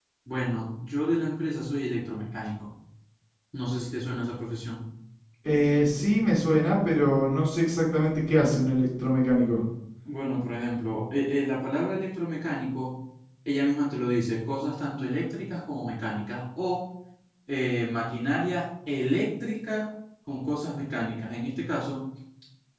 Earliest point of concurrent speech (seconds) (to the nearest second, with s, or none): none